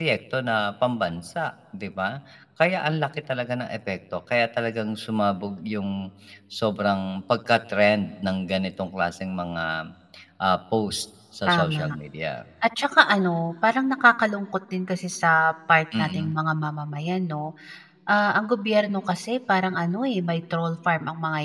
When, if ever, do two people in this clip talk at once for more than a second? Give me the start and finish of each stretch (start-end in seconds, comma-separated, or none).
none